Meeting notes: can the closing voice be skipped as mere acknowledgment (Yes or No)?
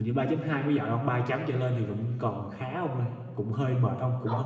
Yes